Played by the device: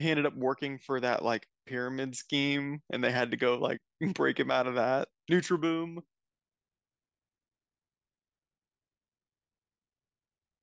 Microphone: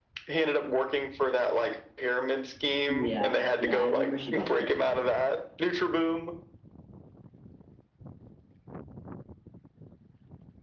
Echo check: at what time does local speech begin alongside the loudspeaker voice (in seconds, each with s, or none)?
2.9 s